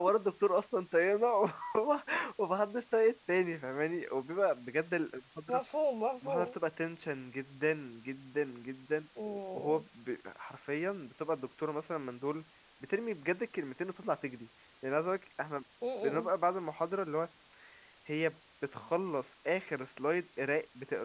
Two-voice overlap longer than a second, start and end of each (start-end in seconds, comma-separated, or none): none